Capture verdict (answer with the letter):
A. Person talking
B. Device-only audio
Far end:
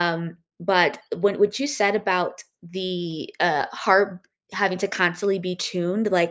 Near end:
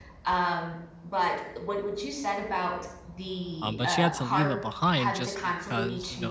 A